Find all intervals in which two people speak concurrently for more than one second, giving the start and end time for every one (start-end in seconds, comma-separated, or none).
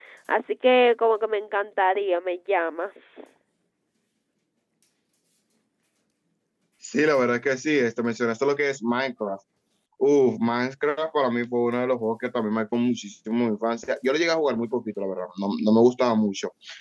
none